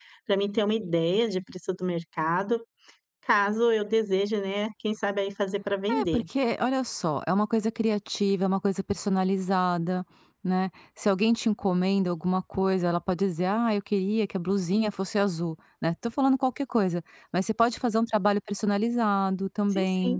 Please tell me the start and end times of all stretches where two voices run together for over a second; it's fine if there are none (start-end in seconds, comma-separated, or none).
none